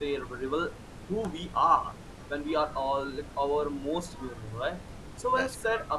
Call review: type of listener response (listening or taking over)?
listening